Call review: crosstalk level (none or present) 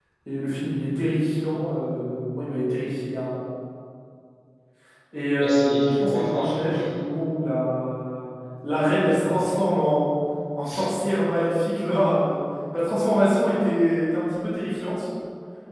present